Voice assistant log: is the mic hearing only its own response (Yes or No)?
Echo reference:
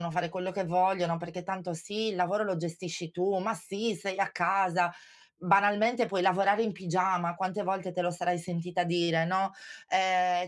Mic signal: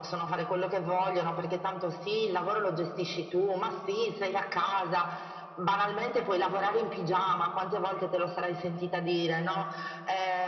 Yes